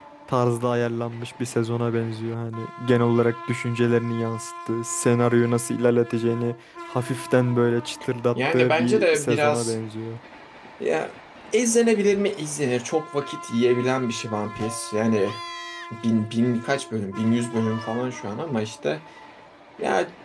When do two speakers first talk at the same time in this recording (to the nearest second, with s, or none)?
8 s